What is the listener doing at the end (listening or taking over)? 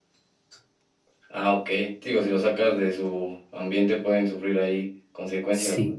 taking over